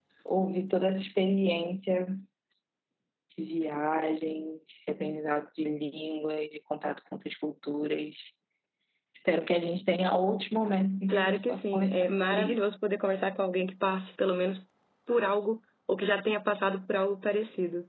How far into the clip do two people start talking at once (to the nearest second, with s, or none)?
11 s